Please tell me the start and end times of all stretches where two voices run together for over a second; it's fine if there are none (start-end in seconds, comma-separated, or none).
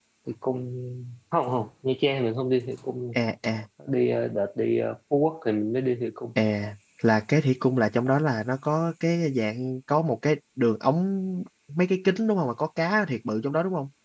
none